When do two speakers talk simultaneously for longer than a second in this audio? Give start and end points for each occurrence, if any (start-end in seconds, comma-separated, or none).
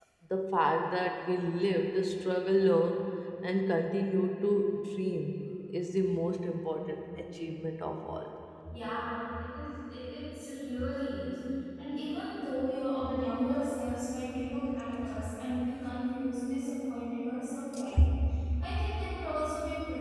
none